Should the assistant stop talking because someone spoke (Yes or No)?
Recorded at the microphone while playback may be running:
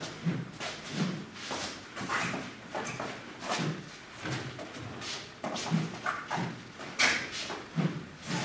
No